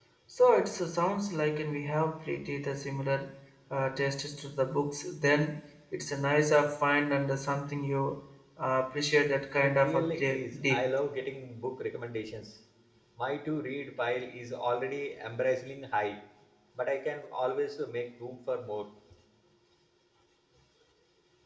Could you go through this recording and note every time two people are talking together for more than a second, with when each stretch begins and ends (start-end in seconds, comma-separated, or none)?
9.6-10.8